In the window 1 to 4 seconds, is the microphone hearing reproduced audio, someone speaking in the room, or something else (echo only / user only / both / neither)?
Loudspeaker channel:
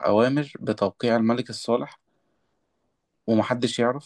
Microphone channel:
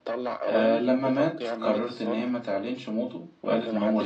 both